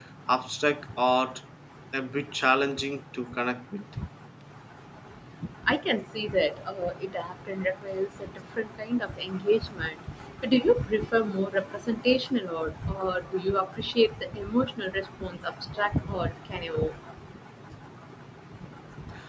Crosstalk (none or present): none